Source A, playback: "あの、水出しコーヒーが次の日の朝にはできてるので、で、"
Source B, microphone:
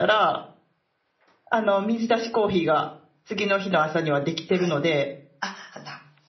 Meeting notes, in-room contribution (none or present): present